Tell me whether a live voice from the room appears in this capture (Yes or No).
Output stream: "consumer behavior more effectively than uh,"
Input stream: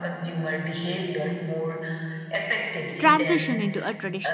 Yes